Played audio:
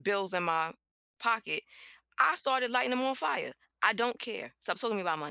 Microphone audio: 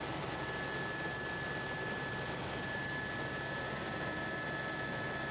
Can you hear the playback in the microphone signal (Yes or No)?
No